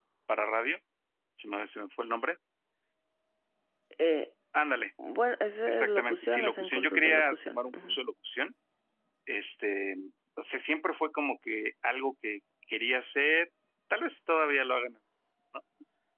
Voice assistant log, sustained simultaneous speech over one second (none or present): present